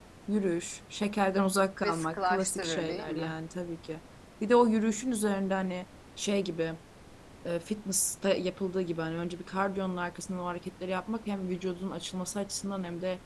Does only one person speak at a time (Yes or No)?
No